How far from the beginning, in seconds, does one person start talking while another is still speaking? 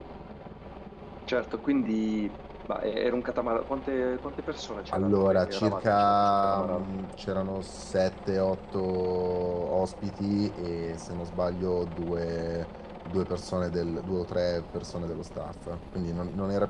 4.9 s

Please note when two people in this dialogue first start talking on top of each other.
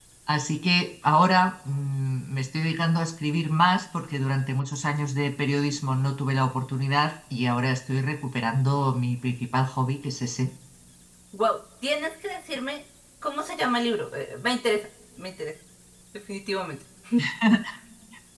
none

